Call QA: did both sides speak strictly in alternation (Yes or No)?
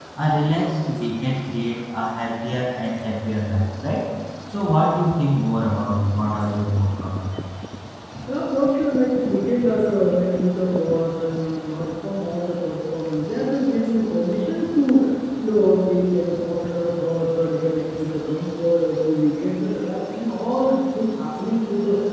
Yes